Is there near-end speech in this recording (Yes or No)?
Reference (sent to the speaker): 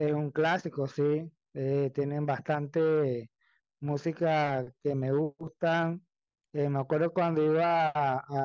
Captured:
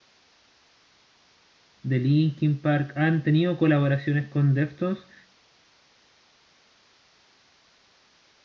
Yes